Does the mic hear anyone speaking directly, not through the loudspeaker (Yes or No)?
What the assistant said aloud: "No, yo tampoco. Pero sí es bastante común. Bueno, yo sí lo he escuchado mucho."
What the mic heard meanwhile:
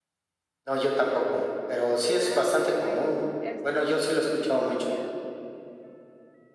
Yes